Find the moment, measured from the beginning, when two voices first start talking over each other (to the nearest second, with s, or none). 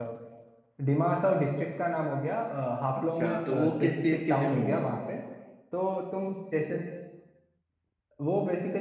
3 s